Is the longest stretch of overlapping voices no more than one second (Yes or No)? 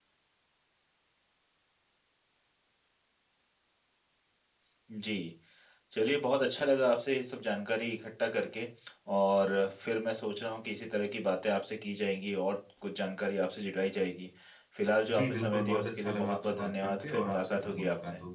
No